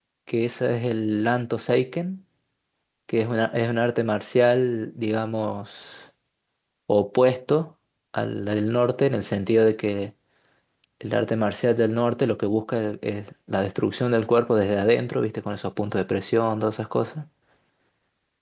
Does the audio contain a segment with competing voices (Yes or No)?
No